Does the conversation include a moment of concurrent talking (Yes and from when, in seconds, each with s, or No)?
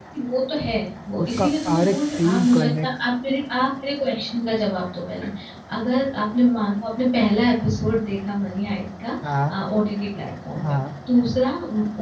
Yes, from 1.2 s